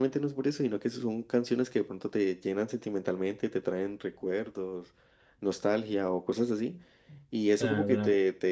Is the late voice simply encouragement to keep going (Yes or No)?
Yes